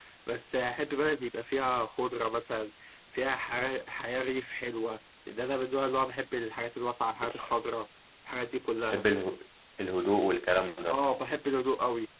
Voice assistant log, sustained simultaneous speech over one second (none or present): none